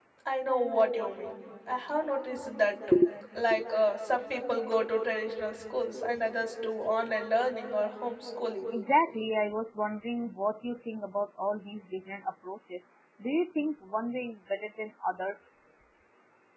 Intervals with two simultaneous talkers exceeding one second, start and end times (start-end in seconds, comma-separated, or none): none